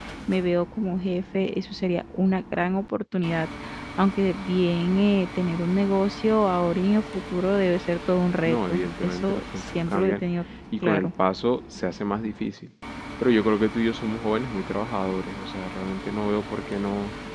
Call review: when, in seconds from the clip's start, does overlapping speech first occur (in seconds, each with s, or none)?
8.4 s